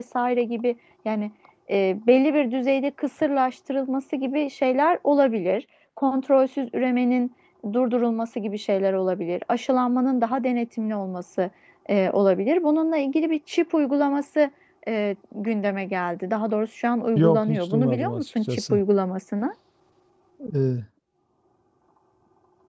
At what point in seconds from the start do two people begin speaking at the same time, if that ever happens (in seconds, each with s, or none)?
17.1 s